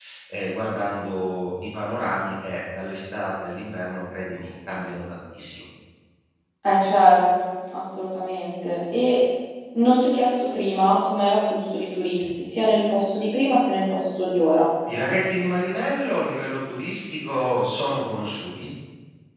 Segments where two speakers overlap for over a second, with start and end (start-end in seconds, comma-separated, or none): none